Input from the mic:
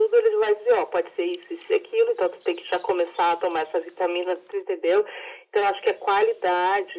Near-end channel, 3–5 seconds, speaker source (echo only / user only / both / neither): echo only